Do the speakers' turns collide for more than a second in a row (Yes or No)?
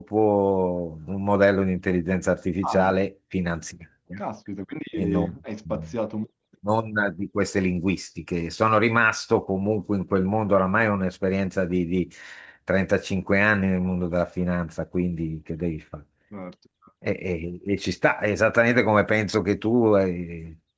No